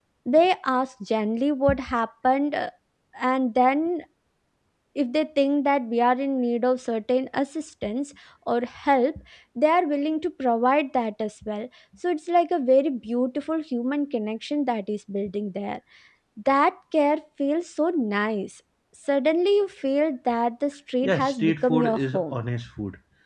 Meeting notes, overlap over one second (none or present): present